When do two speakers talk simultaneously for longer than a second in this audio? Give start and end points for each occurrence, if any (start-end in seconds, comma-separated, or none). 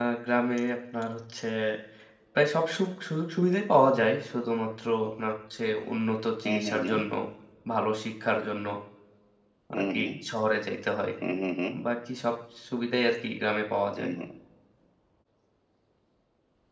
none